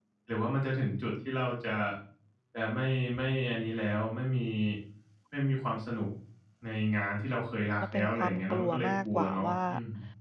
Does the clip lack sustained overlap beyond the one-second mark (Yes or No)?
No